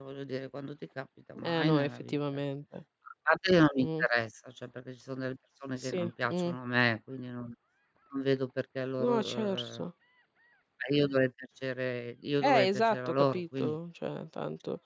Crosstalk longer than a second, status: present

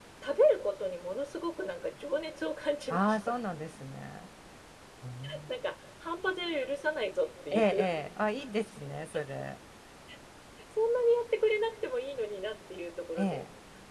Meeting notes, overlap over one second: none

